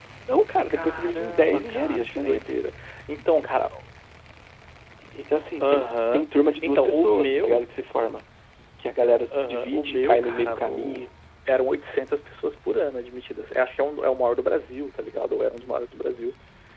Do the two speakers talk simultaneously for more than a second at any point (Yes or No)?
Yes